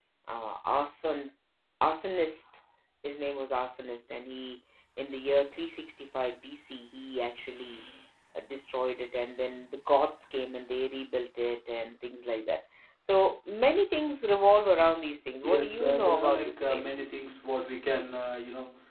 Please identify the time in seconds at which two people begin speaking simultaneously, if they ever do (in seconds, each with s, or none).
15.4 s